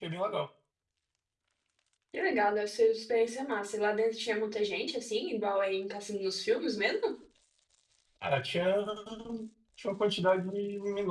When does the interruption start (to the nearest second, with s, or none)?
none